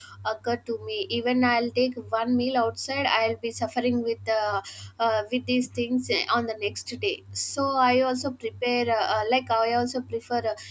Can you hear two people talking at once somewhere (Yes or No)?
No